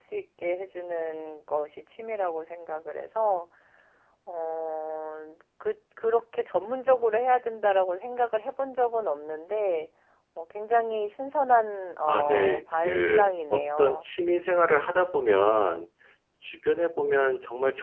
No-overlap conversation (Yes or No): No